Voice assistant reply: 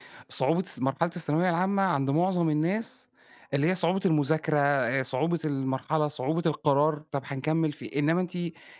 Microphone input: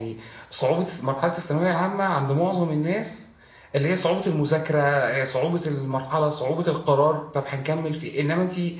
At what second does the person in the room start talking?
none

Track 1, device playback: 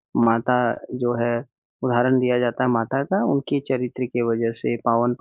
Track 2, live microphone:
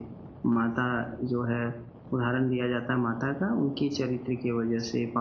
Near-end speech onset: none

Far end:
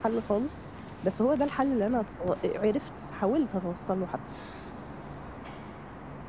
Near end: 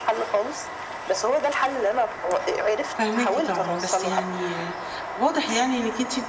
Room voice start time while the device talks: 3 s

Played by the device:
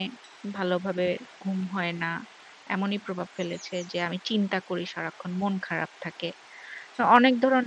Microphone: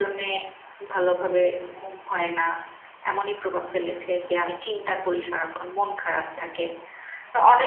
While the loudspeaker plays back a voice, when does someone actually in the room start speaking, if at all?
none

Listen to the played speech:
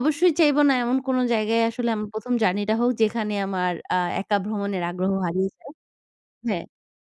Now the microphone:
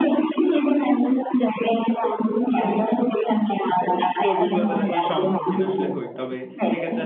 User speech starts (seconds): 4 s

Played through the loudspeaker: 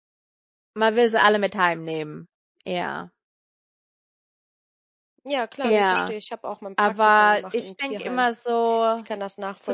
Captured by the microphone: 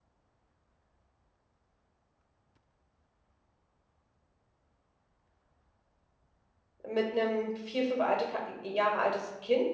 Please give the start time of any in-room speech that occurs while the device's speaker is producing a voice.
7 s

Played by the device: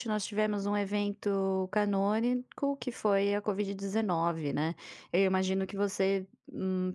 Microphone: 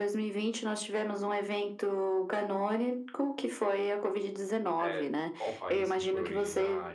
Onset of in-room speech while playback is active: 5 s

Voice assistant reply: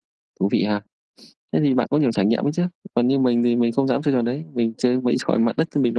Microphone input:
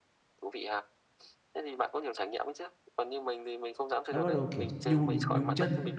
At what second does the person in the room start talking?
4 s

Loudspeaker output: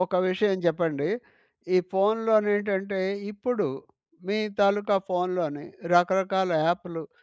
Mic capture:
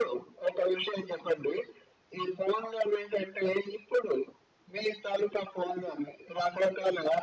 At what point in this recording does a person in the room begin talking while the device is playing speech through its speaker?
none

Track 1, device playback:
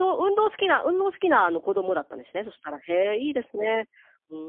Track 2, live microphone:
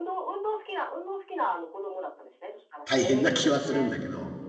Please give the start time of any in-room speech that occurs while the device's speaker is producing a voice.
3 s

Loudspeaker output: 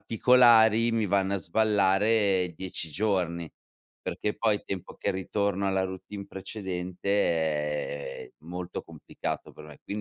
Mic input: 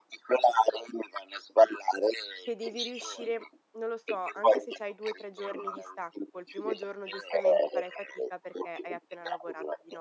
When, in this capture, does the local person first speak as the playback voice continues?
2 s

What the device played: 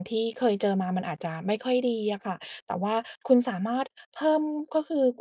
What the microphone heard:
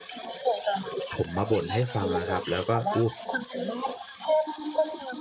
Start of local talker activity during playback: 1 s

